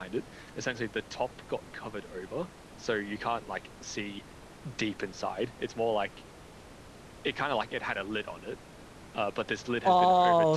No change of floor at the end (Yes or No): No